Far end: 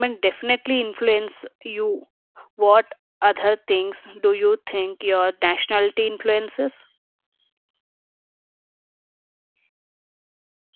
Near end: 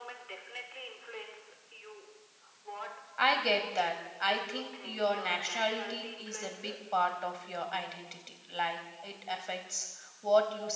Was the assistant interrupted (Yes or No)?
Yes